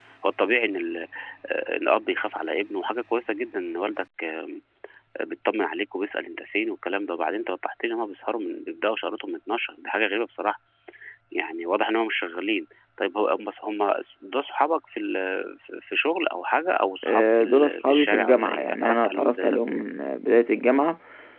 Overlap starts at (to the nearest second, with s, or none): 17 s